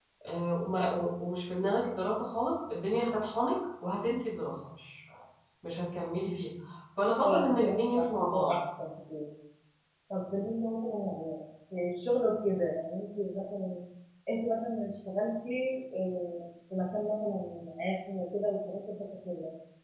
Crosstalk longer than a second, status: present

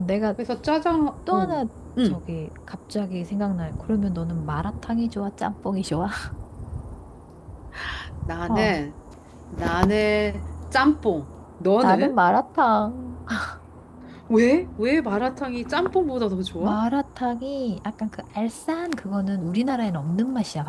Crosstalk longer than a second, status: none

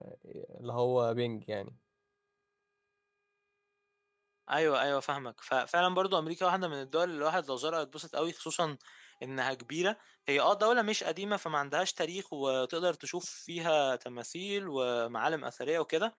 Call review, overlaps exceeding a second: none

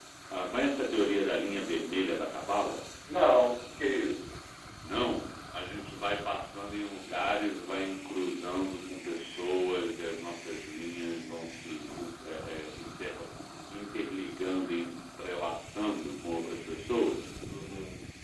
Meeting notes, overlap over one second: none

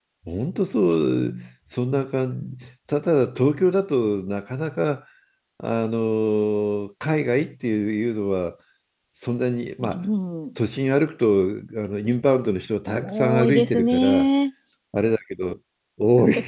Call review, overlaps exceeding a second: present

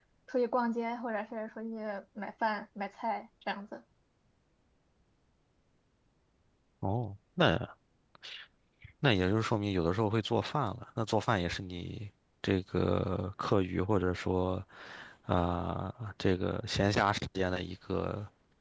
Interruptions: none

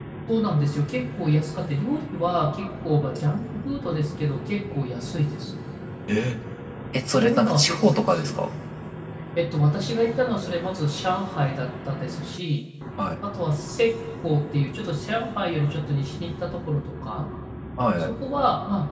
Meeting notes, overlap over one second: present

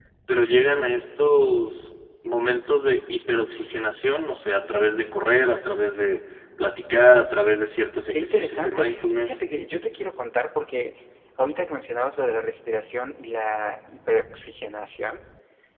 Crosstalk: present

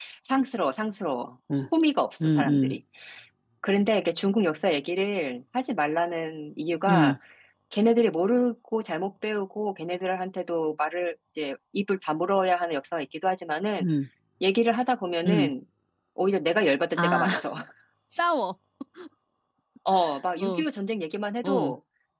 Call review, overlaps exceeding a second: none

